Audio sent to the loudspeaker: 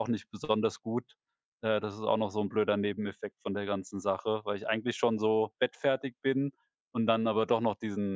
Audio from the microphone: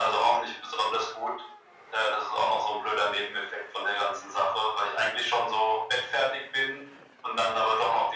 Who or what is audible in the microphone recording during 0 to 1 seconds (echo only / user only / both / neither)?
echo only